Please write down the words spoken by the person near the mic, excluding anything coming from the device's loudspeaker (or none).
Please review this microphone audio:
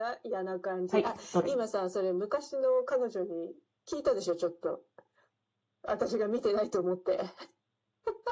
はい、どれ